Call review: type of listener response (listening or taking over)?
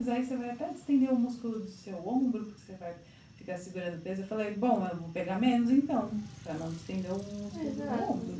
taking over